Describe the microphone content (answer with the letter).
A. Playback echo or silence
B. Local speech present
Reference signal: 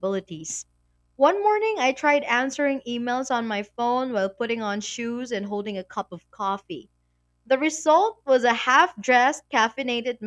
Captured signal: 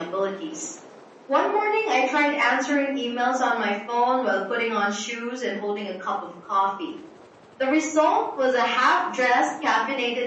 A